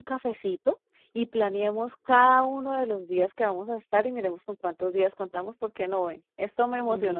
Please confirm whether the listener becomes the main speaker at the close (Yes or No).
Yes